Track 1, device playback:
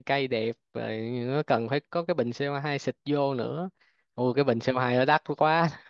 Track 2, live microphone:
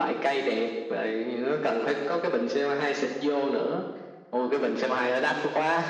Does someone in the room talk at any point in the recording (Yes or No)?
No